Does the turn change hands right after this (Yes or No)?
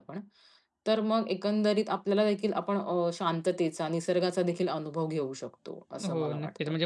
Yes